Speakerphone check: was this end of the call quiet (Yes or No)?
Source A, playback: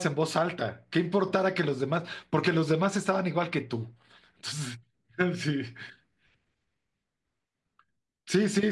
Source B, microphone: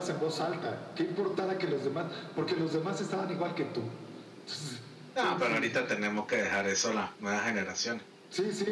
No